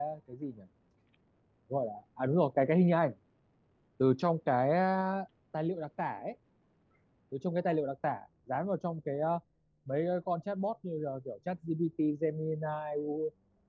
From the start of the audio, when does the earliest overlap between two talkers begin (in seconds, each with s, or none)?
none